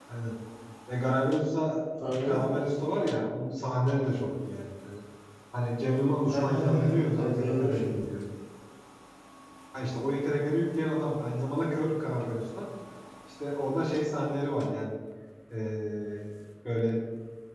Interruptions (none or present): present